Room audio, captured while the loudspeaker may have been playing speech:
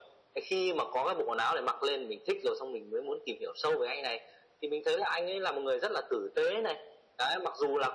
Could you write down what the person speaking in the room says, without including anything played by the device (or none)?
none